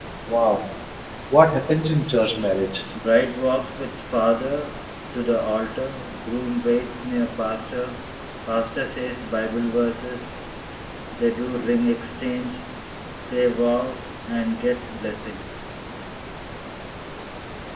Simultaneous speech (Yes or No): No